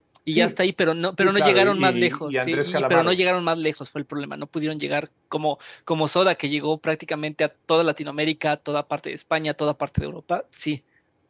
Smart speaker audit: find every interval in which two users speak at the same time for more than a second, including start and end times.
1.2-3.2

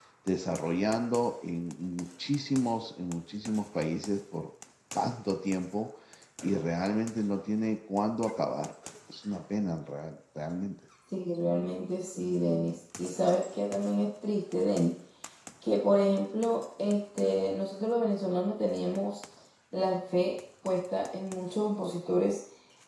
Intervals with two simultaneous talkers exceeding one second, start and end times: none

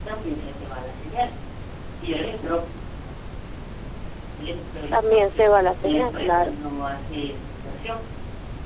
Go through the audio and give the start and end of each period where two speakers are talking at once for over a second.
4.9-6.5

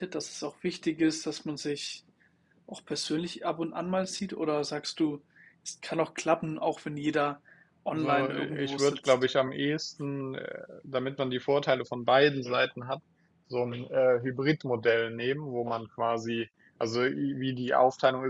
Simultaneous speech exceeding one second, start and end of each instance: 7.9-9.1

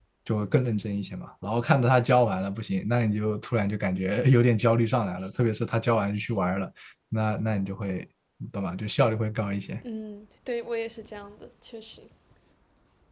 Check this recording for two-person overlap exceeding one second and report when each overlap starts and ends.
none

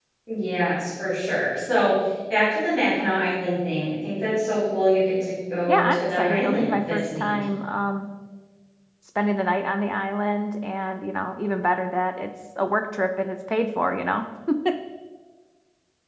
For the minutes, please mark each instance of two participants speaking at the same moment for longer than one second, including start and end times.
5.7-7.3

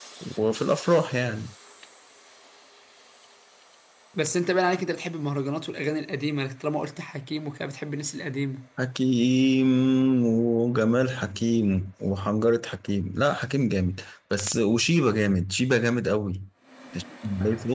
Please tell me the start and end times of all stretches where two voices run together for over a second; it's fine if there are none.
none

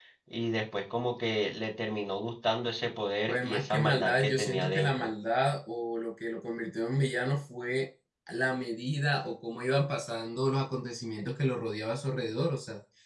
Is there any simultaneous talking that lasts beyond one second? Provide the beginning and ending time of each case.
3.3-5.1

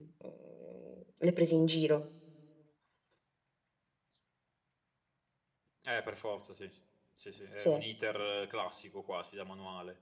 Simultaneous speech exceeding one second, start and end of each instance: none

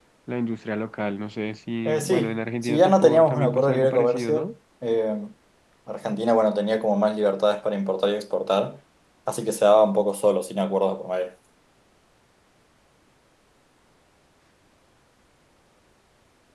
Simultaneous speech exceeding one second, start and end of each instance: 1.9-4.5

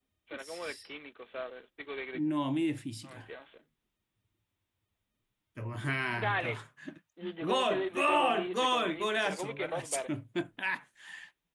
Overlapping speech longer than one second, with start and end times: 7.4-10.0

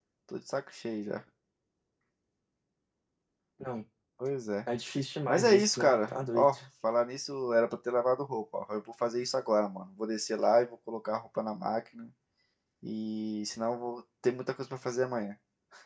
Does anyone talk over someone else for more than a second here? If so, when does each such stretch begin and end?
5.3-6.6

